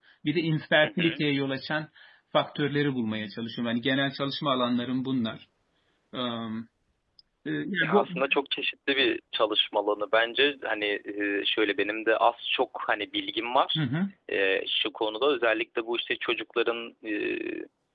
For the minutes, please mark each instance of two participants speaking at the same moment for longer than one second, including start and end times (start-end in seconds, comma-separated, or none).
none